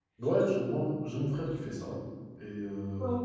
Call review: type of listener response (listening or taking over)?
listening